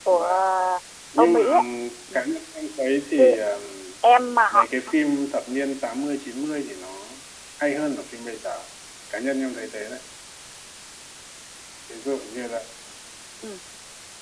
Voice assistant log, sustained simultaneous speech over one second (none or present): none